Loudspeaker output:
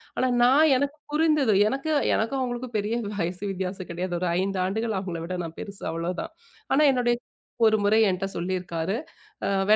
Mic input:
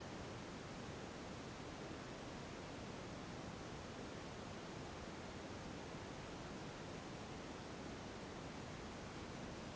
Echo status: none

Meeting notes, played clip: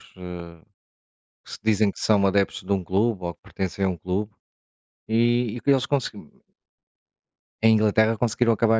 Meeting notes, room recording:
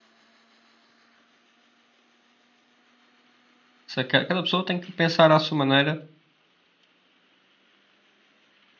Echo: none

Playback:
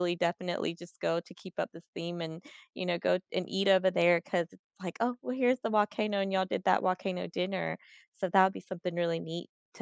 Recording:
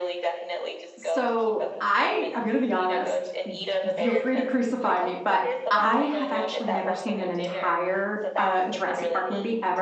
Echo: present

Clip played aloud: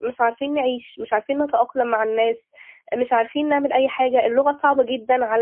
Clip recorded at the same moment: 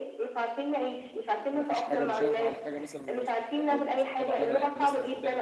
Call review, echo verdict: present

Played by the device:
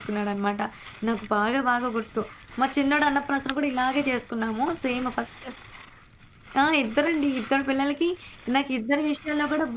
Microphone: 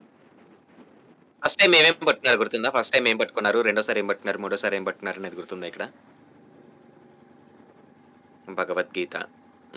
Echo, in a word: none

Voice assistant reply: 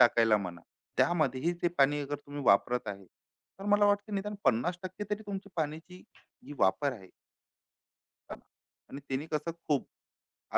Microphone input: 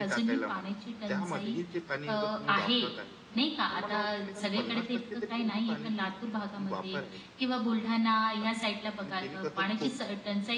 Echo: present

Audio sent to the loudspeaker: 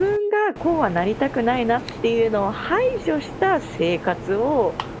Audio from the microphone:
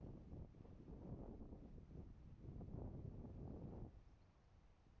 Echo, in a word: none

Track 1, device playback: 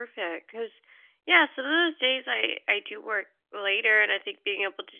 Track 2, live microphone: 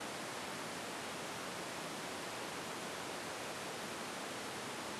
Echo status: none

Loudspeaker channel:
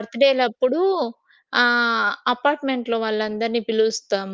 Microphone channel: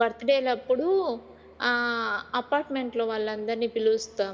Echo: present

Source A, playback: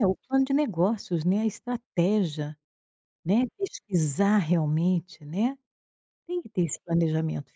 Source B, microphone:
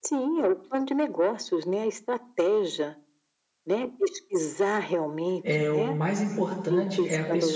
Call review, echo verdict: present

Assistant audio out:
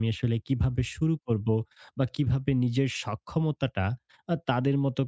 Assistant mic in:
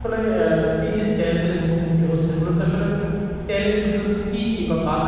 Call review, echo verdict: none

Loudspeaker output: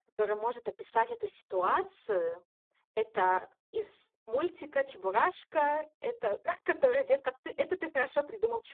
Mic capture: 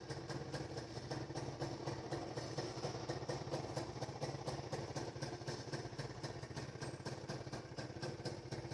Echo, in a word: none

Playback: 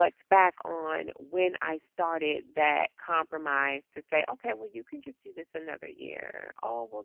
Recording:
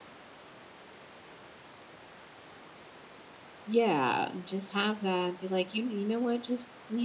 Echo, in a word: none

